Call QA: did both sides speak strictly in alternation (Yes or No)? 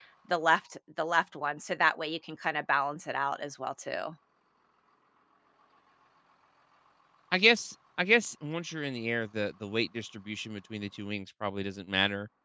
Yes